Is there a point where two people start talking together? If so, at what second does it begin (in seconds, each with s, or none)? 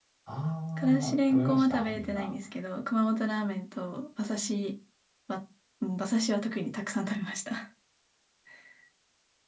0.8 s